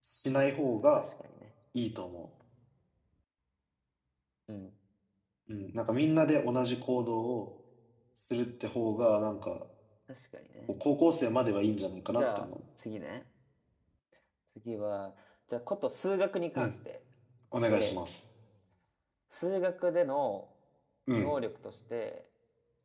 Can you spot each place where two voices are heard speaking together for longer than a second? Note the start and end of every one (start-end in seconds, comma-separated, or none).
none